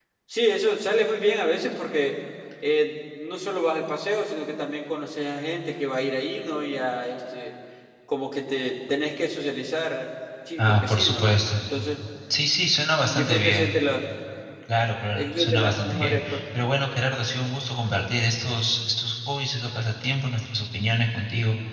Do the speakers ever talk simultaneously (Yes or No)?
Yes